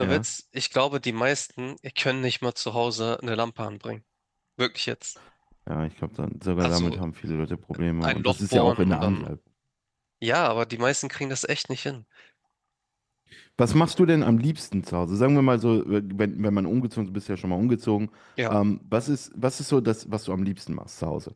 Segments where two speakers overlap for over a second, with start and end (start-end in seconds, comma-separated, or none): 8.0-9.3